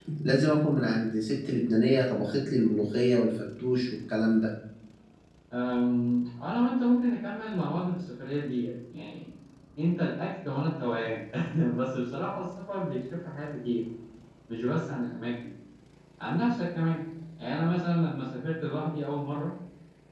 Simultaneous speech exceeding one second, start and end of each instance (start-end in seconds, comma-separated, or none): none